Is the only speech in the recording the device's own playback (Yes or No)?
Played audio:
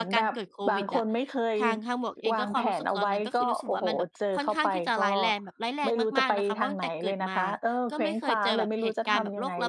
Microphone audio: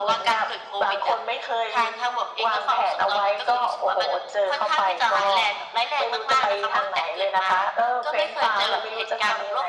Yes